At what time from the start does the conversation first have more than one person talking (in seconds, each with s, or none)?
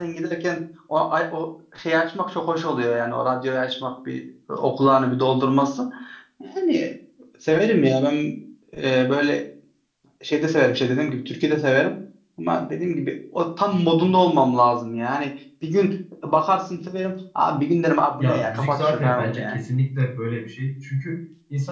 18.2 s